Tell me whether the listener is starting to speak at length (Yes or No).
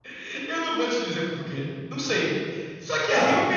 No